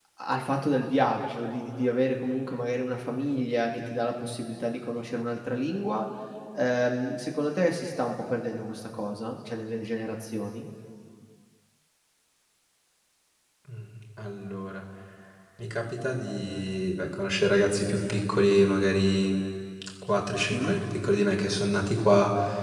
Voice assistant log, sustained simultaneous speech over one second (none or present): none